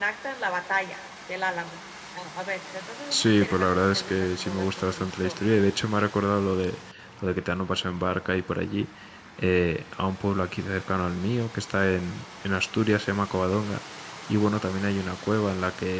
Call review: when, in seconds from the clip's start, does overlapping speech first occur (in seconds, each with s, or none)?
3.1 s